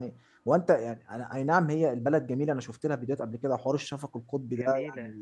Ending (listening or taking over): listening